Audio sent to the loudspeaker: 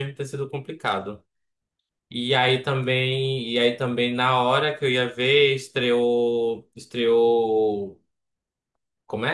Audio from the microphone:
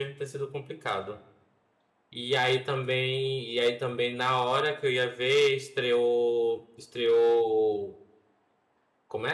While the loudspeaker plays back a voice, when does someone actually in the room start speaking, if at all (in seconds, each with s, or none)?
none